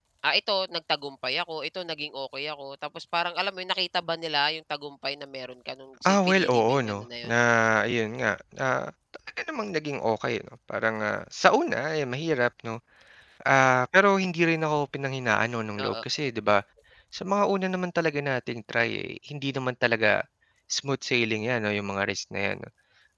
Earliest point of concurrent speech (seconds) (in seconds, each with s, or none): 6.1 s